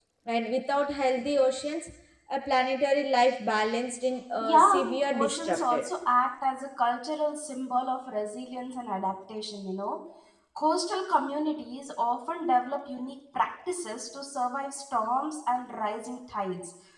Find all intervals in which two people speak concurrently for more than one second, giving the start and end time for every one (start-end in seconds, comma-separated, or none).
4.4-5.8